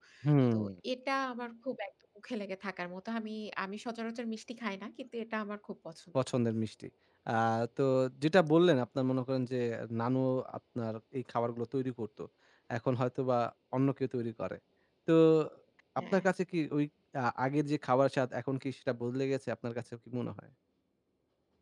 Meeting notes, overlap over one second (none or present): none